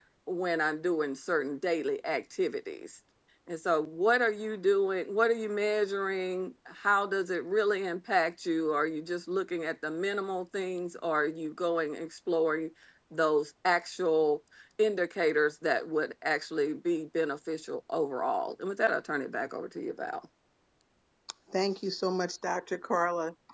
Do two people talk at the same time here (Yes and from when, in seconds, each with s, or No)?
No